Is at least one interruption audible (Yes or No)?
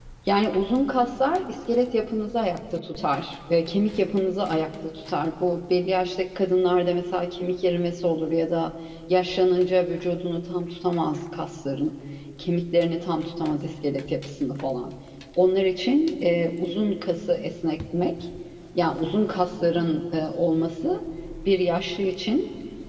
No